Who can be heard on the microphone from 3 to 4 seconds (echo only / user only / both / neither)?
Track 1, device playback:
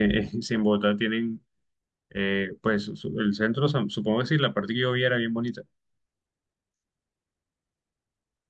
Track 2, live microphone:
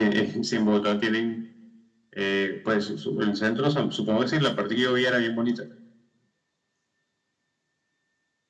echo only